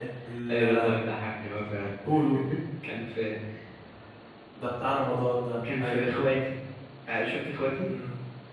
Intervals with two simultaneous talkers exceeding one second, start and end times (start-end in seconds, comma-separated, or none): none